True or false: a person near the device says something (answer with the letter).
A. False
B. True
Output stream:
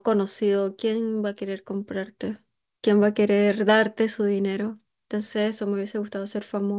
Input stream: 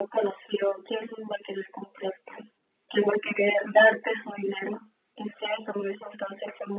A